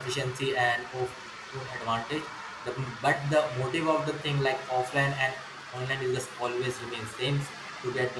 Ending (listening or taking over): listening